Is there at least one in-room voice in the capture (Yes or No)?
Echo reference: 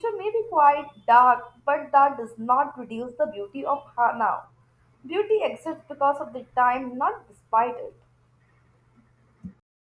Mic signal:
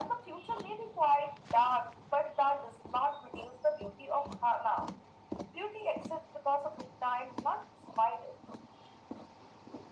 No